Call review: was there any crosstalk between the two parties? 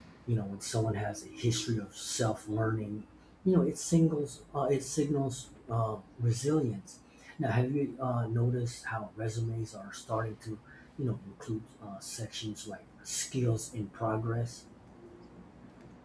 No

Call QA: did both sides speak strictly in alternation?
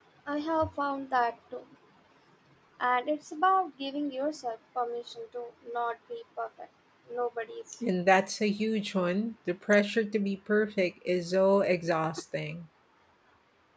Yes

